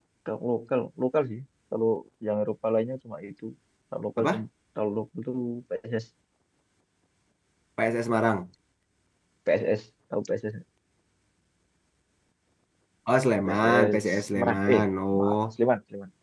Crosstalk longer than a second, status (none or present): present